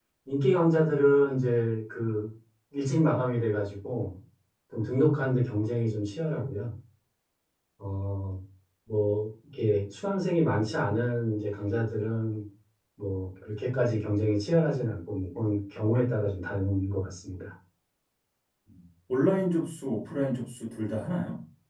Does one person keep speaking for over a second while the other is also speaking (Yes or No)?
No